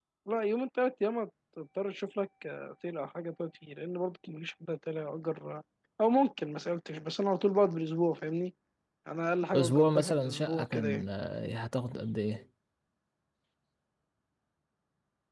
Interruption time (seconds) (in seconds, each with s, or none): 9.5 s